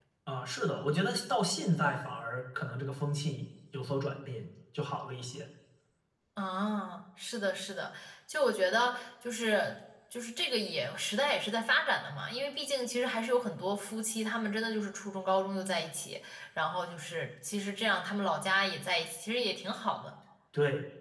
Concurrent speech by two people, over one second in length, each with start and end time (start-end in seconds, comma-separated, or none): none